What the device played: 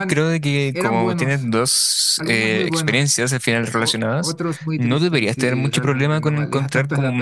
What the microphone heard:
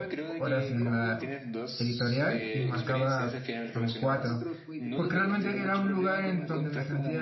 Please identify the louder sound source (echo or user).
user